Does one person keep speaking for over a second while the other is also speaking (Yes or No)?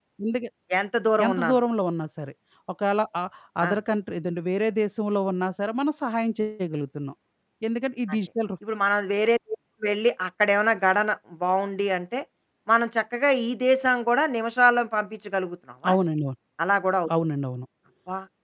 No